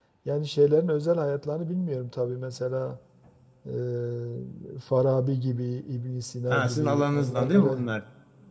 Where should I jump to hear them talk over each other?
6 s

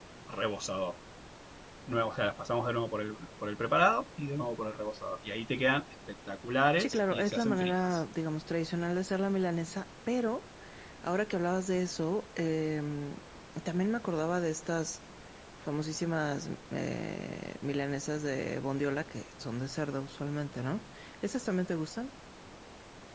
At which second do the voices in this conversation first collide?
7 s

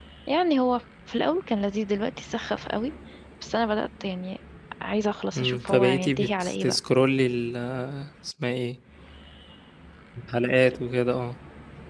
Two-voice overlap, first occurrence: 5 s

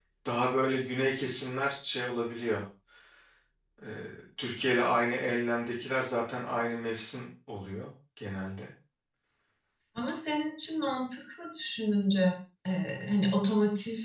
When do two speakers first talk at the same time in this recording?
none

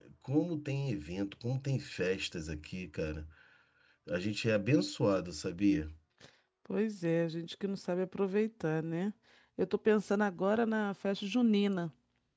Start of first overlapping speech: none

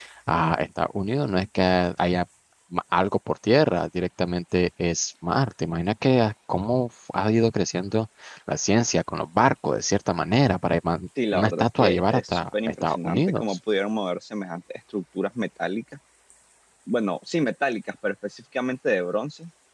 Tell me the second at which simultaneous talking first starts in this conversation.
11 s

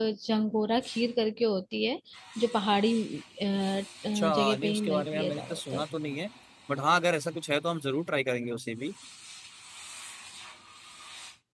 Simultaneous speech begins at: 4 s

